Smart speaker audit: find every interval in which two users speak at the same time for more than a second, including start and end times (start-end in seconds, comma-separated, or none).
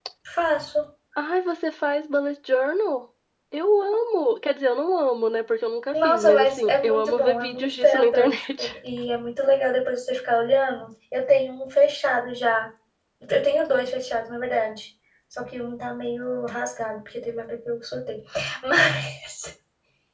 5.9-8.7